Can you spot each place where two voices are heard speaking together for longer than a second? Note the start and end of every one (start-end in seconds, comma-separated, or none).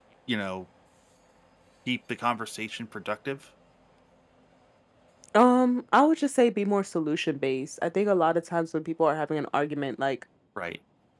none